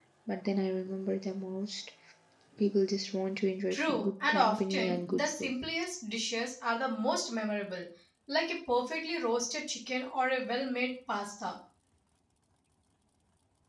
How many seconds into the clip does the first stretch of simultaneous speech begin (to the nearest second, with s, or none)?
4 s